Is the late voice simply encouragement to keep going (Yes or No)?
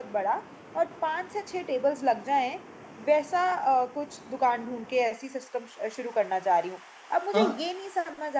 Yes